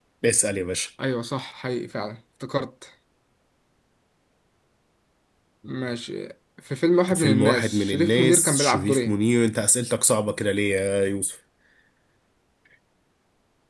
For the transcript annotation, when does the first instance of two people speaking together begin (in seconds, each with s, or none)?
7.1 s